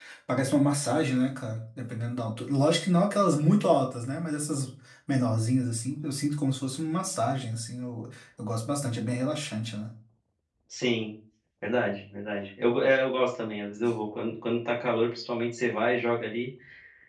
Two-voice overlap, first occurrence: none

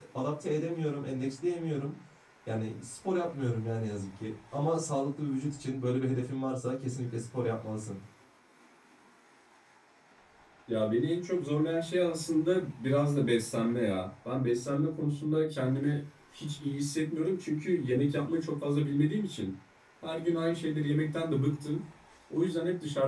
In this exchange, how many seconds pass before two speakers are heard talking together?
none

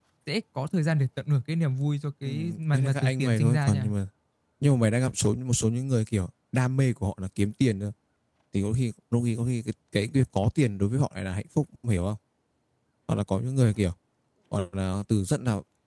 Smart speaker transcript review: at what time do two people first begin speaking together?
2.2 s

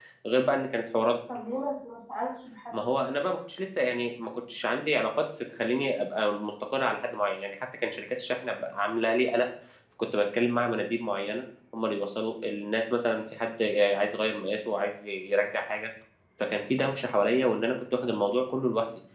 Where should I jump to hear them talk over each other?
none

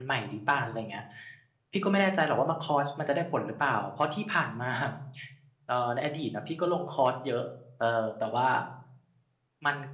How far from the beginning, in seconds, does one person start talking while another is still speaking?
none

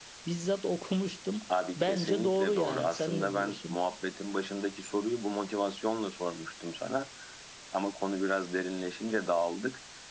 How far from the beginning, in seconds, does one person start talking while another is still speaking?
1.8 s

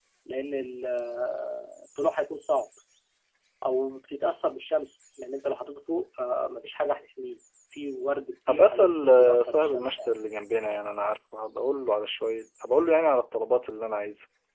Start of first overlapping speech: 8.5 s

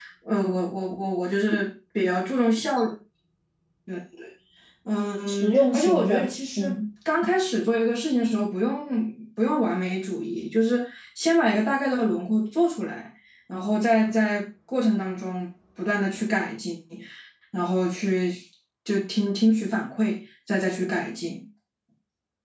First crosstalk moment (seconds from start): 5.3 s

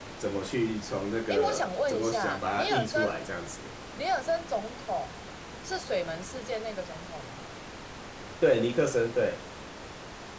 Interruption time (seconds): 1.3 s

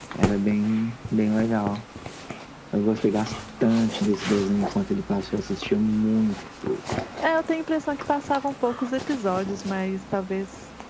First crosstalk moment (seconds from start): none

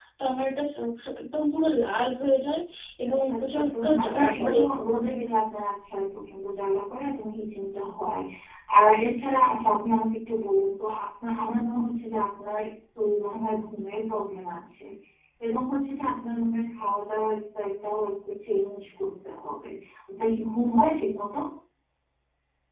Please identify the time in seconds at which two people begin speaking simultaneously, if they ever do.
3.1 s

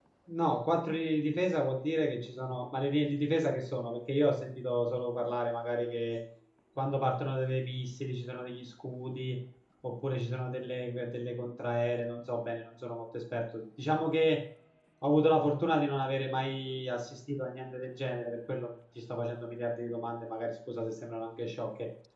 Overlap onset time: none

